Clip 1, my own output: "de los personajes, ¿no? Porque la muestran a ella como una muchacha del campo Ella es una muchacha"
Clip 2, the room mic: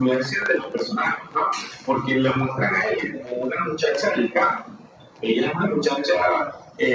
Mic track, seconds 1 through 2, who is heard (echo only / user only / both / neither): echo only